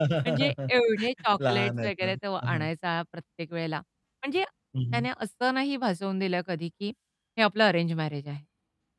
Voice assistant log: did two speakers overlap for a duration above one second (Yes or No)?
Yes